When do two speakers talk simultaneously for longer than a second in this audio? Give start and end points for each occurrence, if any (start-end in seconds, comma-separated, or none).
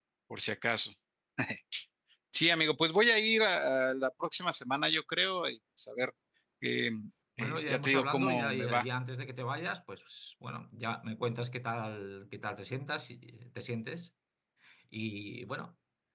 7.4-8.8